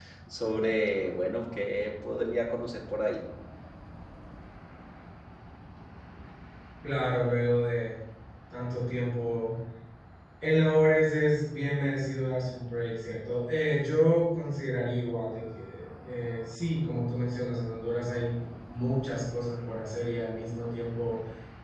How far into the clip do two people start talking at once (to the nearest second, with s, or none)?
none